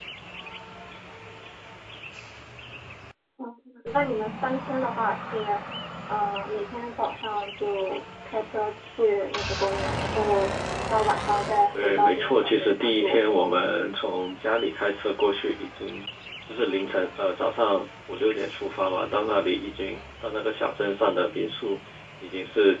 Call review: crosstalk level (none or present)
present